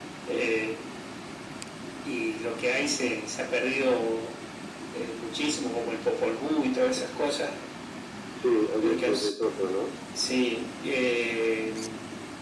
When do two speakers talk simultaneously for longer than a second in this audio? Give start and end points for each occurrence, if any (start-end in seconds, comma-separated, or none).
none